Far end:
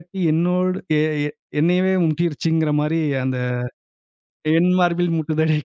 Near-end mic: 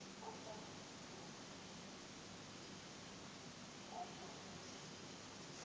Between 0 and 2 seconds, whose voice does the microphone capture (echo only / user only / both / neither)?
neither